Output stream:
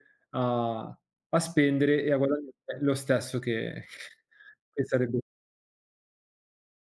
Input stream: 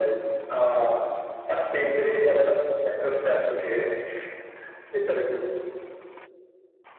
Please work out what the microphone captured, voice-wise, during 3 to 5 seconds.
echo only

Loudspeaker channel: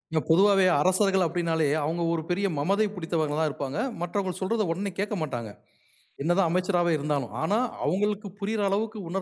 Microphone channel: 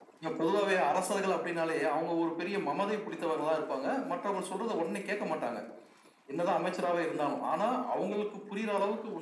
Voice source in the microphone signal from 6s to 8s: echo only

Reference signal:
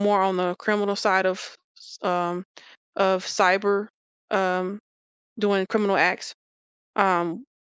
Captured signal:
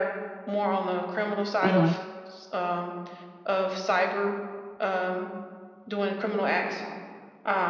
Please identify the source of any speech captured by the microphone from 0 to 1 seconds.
echo only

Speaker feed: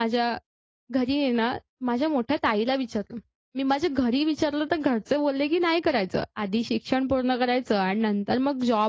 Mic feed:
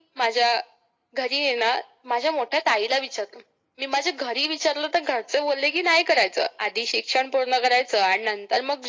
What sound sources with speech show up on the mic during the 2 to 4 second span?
echo only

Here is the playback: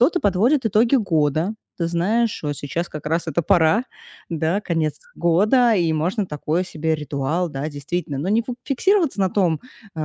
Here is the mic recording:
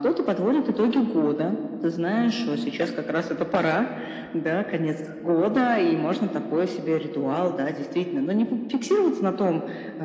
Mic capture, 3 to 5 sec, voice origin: echo only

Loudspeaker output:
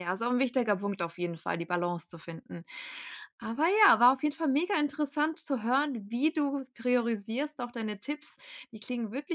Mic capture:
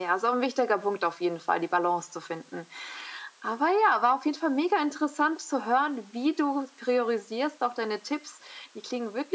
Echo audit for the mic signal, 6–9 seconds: echo only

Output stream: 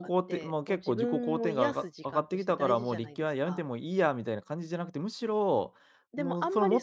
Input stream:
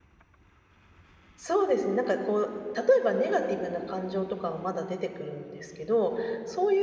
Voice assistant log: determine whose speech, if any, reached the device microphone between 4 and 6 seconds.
user only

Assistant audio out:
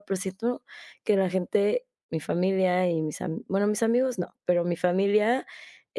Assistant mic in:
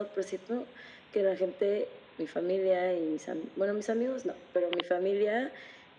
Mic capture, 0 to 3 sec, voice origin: echo only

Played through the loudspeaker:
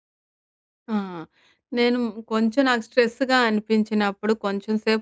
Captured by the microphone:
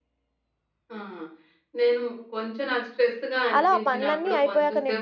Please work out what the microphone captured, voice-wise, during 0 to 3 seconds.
echo only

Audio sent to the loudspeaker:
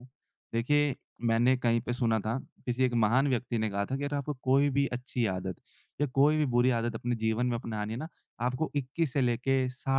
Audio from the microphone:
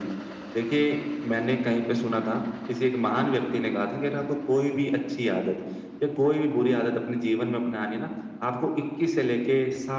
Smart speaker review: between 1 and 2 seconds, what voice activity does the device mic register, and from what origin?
echo only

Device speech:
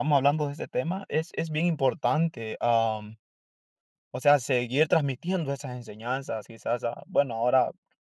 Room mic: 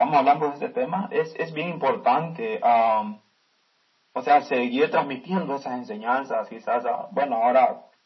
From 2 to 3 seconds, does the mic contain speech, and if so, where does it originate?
echo only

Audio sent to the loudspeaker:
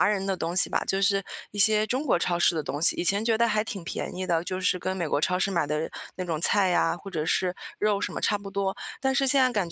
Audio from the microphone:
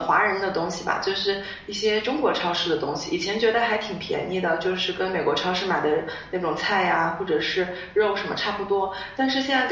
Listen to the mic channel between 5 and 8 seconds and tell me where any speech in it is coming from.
echo only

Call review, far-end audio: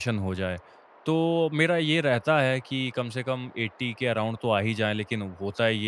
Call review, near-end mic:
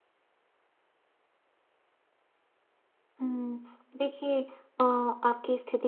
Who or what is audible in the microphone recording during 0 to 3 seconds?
neither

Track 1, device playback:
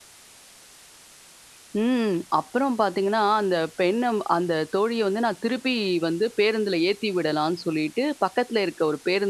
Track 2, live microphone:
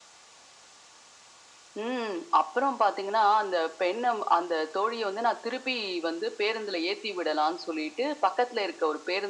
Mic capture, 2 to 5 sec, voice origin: echo only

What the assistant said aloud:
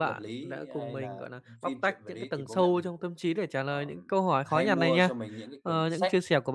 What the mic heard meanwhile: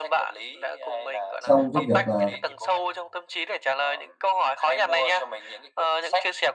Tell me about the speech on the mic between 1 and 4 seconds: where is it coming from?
both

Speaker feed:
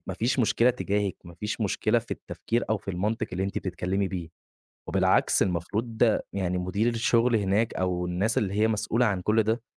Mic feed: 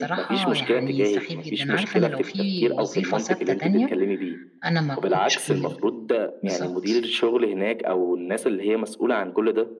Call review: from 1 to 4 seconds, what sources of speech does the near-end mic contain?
both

